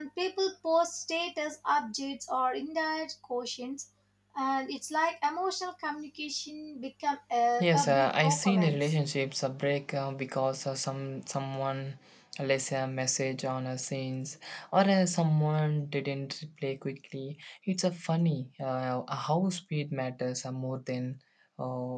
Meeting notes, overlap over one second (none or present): present